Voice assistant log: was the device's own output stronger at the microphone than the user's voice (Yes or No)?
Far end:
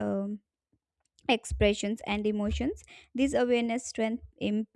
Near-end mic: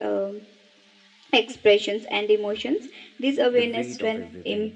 Yes